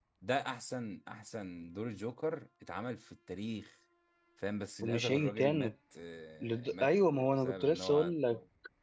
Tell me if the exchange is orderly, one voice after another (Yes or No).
No